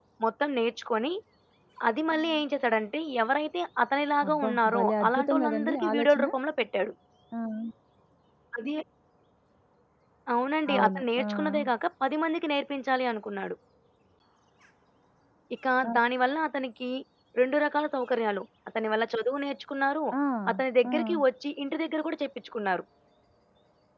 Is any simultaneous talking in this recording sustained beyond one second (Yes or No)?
Yes